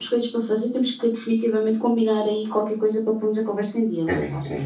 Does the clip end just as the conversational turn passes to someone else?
Yes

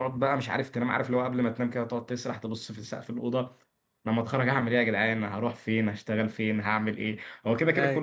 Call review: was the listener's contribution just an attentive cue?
Yes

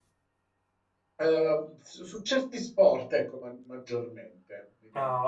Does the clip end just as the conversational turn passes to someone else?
Yes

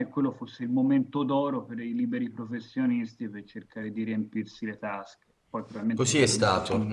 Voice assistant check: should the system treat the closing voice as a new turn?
Yes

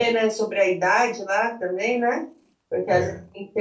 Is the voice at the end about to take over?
No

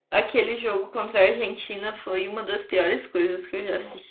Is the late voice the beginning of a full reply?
No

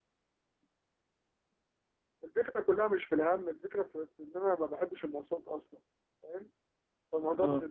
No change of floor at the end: Yes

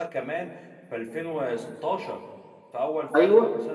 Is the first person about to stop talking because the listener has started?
Yes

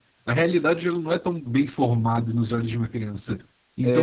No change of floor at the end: Yes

